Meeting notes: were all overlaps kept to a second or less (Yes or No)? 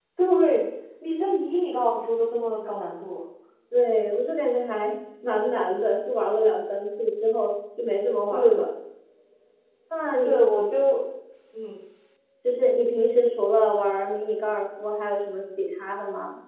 Yes